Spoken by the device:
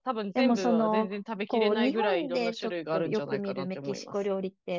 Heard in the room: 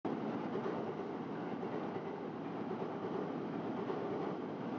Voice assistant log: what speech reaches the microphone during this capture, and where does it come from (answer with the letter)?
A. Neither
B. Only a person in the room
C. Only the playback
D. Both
A